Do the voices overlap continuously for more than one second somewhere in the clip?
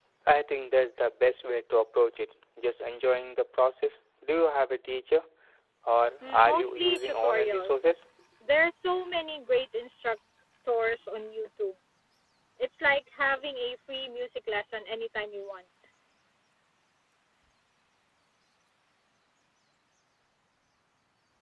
Yes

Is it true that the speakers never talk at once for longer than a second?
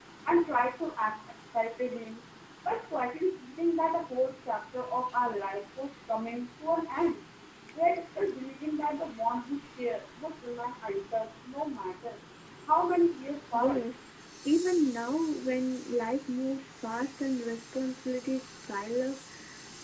Yes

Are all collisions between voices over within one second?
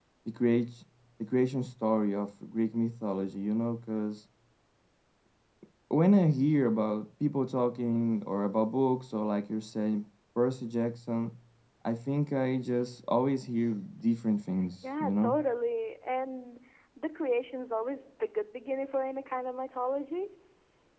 Yes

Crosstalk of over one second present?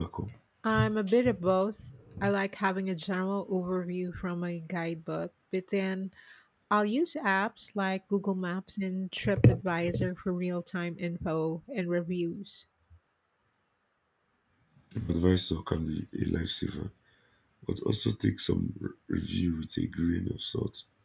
No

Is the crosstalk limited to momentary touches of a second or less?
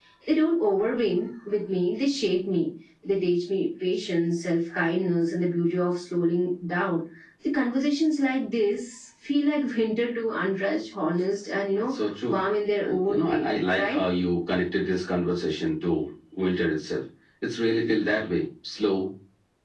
No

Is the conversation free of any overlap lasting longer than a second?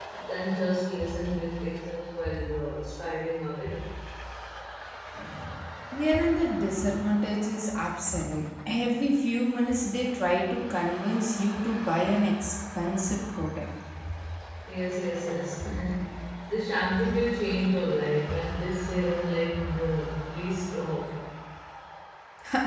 Yes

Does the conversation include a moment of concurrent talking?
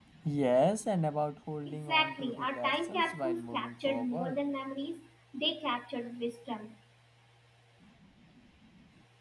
Yes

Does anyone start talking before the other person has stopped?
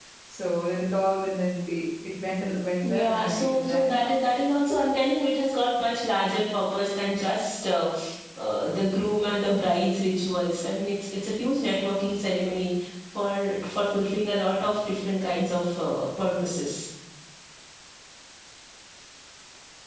Yes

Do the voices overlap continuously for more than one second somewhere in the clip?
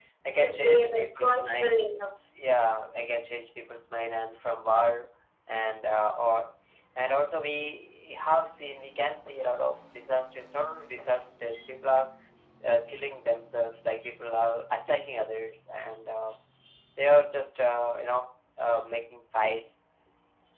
Yes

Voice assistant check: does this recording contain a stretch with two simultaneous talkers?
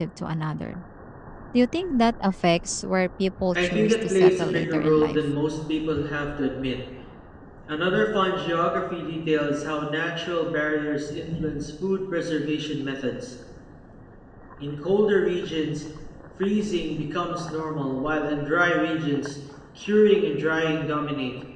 Yes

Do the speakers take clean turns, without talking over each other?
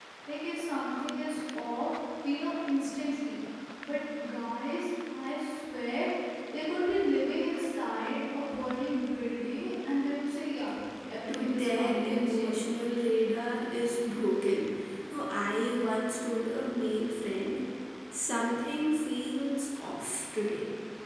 No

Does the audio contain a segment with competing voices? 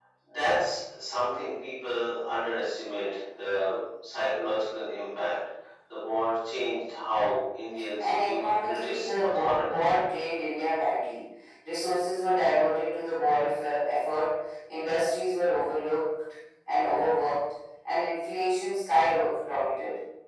Yes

